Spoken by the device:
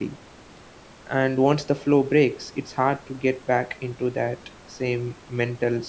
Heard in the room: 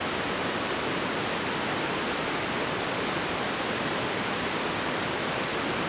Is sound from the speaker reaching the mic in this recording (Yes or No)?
No